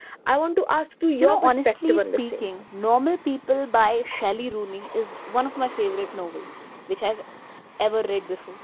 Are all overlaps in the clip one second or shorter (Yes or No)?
No